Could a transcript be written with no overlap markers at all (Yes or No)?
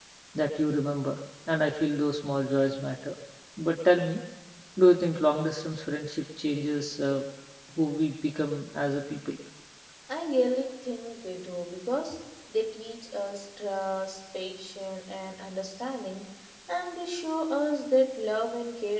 Yes